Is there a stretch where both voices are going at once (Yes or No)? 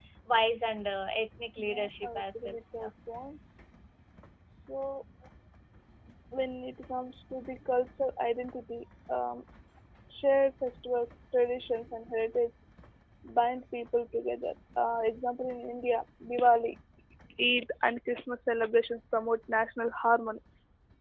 Yes